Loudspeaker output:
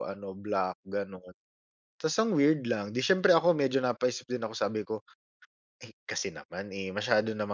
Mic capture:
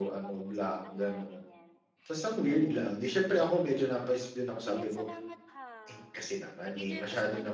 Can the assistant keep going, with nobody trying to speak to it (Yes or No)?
No